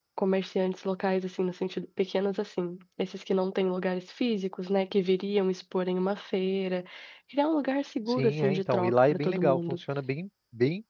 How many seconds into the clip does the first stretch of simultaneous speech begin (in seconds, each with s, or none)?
8.1 s